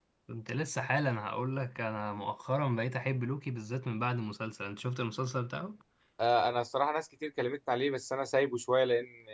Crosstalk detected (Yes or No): No